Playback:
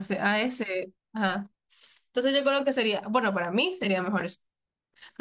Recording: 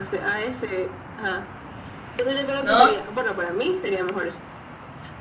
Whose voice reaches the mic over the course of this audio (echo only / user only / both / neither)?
both